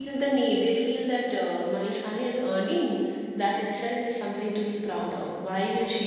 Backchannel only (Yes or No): Yes